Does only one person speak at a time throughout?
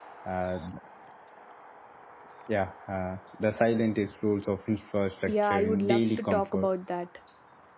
No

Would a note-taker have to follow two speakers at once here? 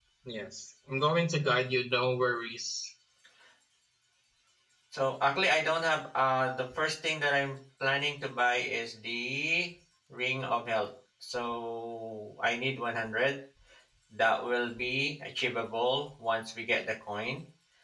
No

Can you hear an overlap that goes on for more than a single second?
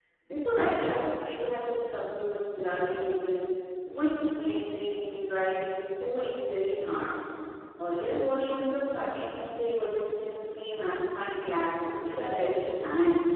No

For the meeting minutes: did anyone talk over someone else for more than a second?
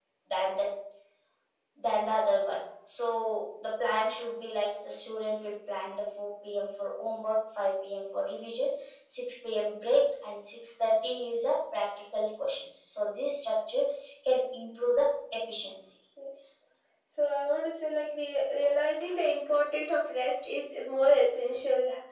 No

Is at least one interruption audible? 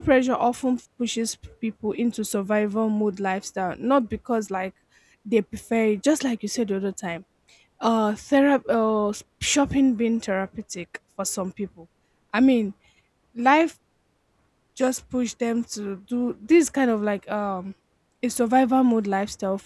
No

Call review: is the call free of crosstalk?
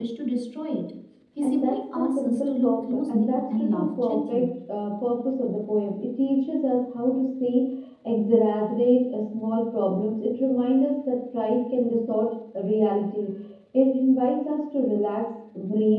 No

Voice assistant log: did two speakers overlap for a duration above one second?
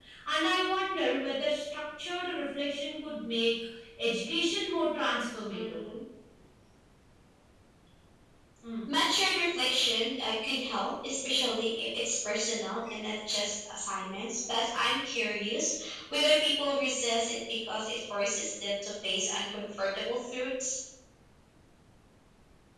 No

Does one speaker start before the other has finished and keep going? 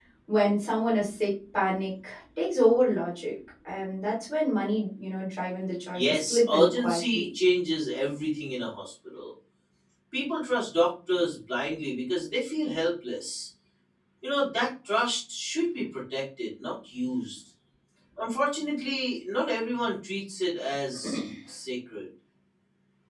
Yes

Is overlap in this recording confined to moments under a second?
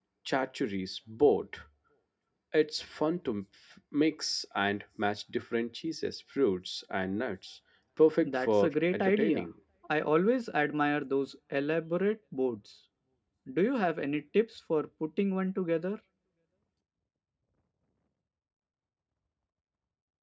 No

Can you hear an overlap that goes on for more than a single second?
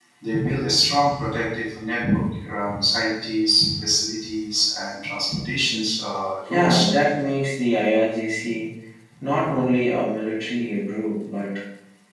No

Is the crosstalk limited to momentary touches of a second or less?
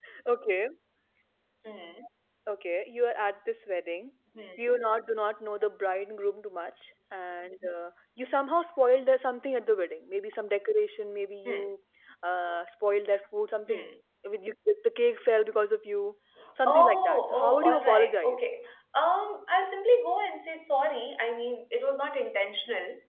No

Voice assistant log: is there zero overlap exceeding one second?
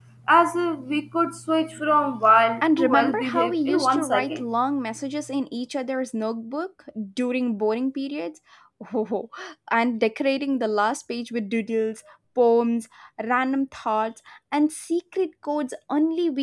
No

